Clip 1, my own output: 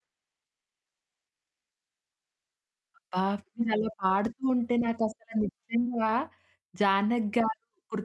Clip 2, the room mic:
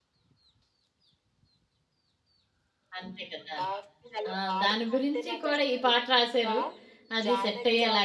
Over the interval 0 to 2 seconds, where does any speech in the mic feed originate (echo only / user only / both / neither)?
neither